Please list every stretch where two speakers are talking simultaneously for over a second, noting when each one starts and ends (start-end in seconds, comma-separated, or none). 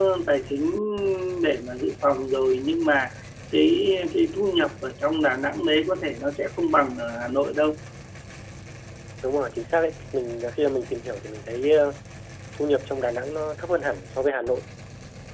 none